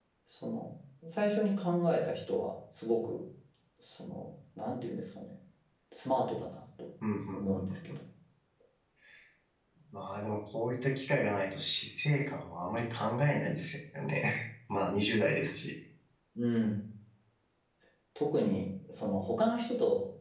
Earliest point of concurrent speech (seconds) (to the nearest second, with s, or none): none